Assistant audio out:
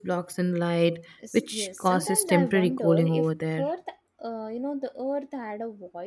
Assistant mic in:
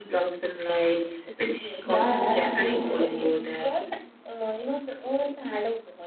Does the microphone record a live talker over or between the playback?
Yes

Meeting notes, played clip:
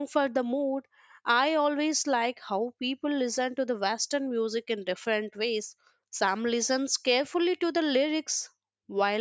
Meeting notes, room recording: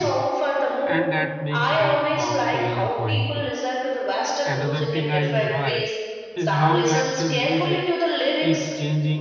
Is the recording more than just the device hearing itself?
Yes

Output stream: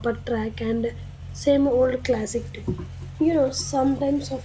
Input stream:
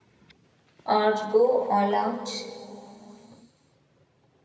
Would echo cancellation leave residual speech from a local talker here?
Yes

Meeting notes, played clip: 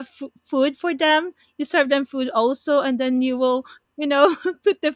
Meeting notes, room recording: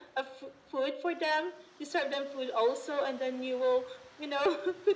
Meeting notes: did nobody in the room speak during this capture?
Yes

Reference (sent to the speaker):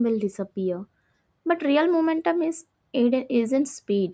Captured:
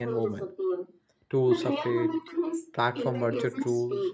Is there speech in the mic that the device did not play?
Yes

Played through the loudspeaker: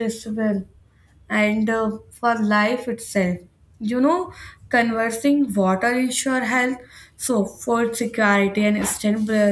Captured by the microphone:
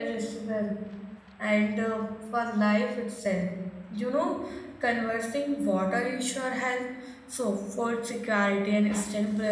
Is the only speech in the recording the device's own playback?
Yes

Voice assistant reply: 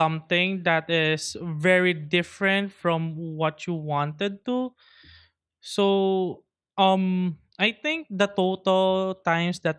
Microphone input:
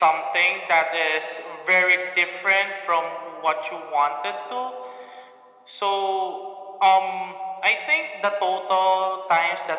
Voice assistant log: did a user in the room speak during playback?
No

